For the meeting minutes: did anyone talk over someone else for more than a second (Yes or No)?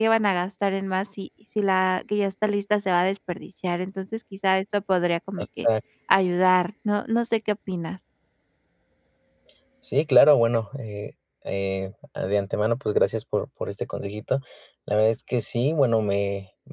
No